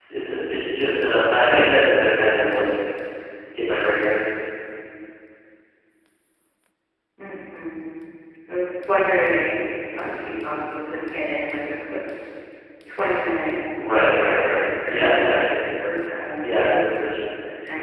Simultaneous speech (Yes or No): Yes